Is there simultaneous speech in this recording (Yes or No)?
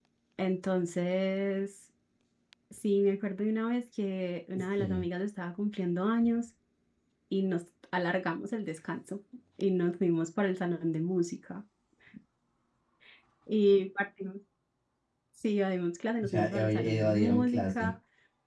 Yes